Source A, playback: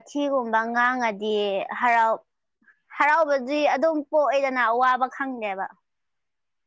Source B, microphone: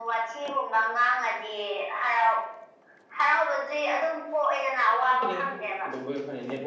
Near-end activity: present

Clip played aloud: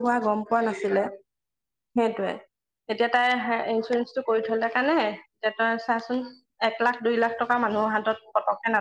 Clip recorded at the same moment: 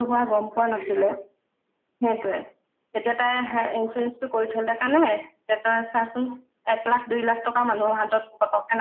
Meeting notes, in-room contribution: none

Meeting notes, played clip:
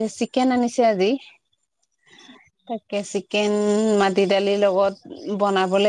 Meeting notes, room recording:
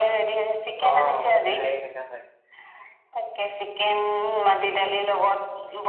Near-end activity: present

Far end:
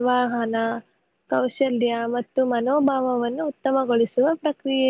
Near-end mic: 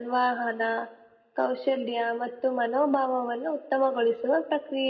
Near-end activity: none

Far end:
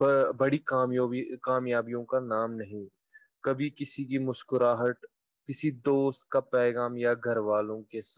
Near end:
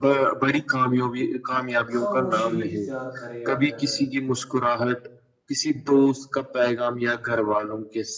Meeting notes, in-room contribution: present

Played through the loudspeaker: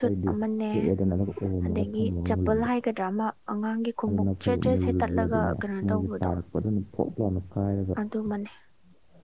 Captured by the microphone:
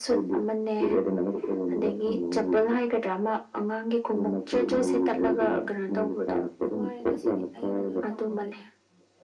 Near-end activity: present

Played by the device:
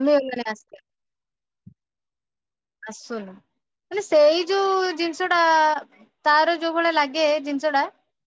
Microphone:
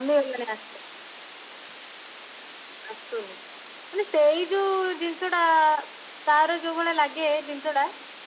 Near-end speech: none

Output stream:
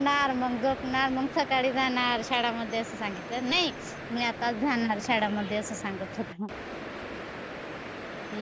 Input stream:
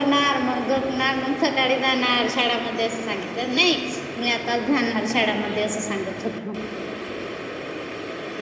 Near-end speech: none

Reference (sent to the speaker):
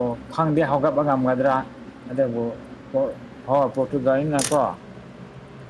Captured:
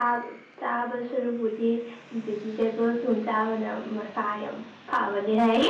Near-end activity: present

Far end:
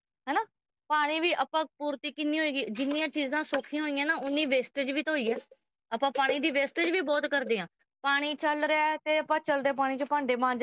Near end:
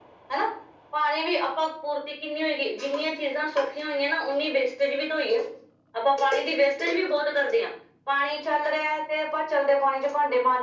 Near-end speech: none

